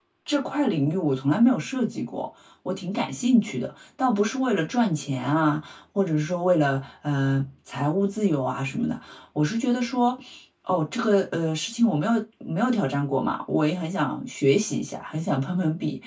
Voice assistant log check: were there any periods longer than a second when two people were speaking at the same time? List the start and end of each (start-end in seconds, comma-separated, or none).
none